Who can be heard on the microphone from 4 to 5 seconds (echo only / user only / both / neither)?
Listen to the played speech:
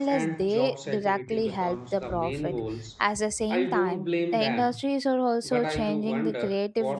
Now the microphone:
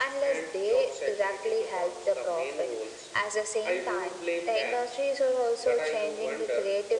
echo only